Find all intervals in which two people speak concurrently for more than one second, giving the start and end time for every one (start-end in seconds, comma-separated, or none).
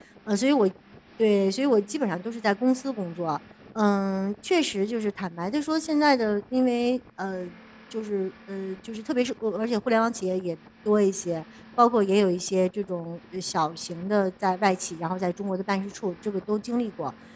none